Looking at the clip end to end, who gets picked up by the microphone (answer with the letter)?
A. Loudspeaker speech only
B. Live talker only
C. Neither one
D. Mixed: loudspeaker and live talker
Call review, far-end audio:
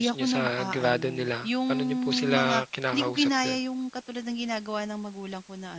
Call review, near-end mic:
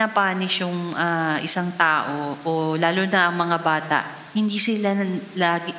B